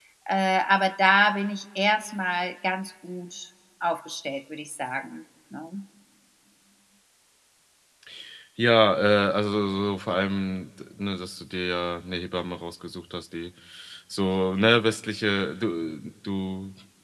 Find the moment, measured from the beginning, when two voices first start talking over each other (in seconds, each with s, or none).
none